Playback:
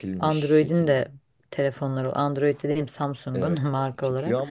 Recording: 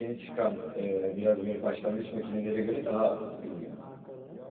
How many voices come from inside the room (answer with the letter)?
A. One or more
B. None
A